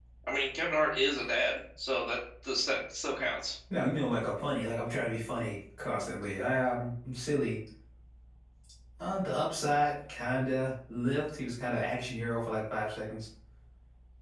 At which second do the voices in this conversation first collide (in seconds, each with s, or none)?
none